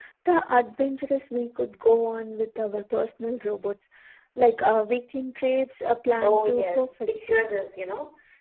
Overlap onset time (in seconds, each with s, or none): 6.2 s